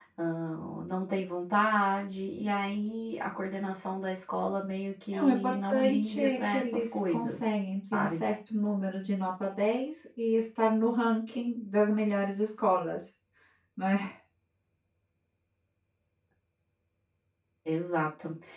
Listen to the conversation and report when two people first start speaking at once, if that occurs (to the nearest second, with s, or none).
5 s